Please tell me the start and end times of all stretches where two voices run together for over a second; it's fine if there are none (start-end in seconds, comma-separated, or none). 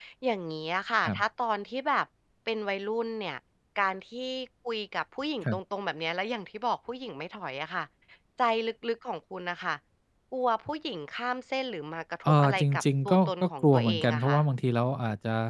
12.2-14.4